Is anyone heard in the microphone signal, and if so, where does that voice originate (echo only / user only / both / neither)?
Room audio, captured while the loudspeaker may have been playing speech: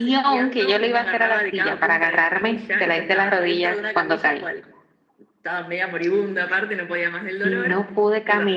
echo only